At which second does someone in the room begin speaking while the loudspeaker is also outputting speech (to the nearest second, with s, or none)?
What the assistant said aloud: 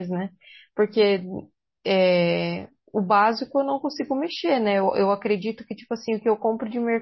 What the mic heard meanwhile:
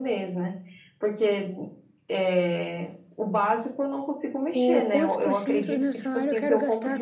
5 s